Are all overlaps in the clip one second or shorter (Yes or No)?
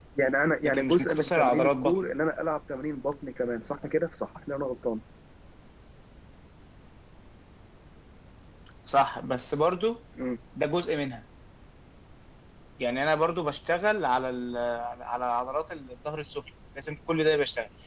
No